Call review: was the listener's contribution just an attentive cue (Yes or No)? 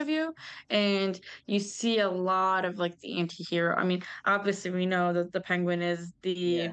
Yes